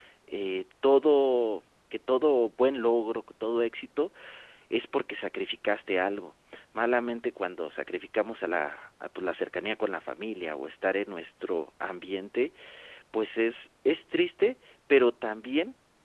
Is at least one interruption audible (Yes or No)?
No